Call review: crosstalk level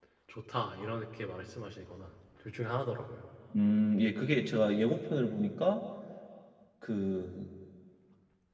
none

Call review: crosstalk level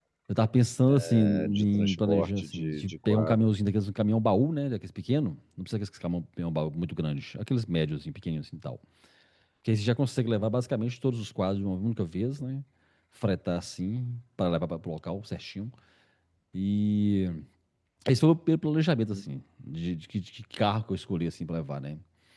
present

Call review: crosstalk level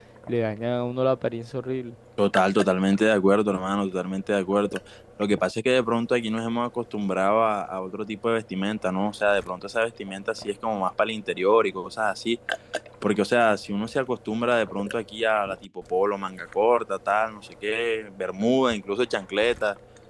none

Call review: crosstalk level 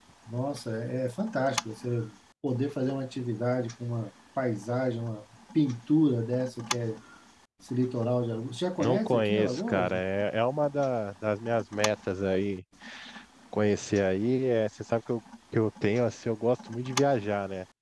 present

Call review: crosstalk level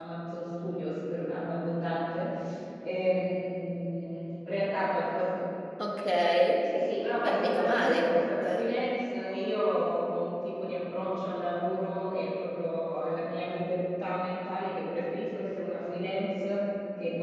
present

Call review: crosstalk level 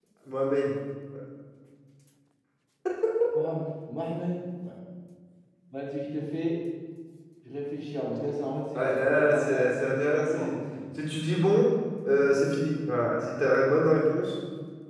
present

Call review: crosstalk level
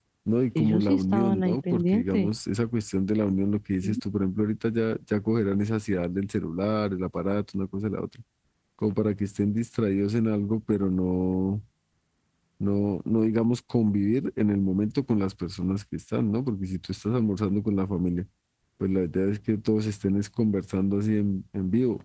present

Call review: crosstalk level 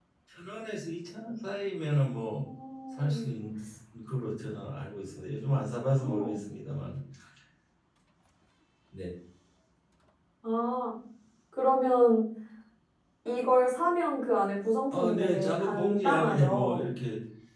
present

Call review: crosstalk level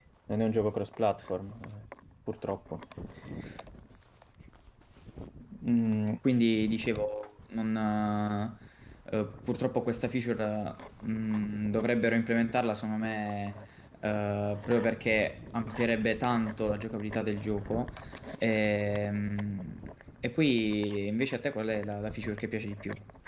none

